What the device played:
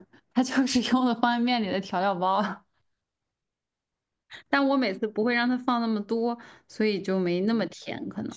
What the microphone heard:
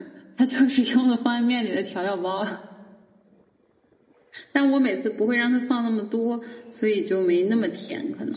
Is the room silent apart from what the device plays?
Yes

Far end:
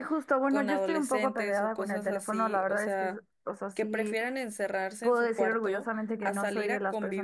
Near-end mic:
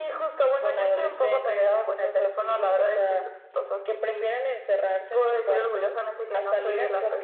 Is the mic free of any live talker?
Yes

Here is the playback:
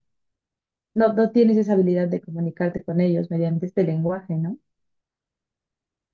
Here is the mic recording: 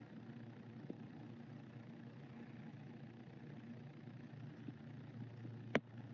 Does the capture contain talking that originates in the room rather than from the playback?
No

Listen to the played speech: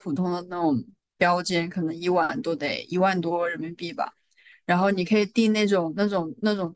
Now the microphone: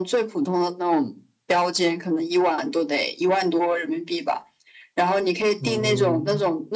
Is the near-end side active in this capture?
Yes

